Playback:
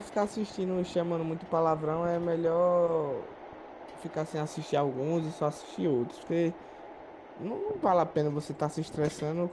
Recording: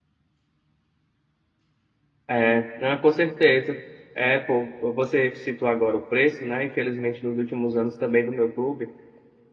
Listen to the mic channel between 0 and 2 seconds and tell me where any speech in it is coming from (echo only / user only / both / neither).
neither